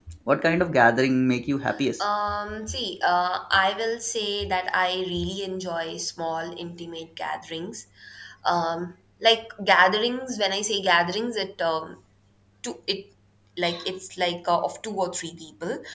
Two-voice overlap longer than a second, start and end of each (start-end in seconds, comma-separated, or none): none